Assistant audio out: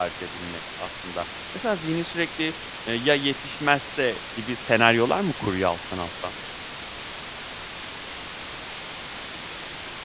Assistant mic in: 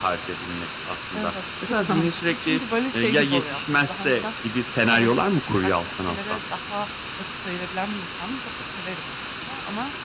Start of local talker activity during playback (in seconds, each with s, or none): 1.1 s